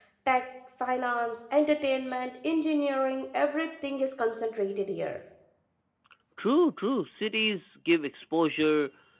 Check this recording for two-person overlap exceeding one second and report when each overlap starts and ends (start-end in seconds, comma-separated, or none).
none